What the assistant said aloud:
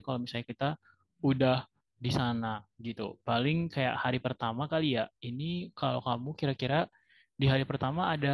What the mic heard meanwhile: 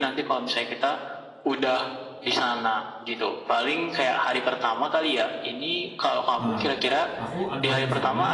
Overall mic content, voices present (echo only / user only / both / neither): both